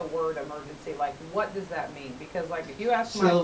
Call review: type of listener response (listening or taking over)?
listening